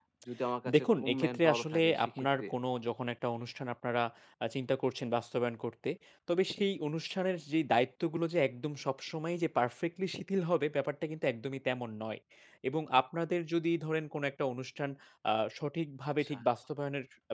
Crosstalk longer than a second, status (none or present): present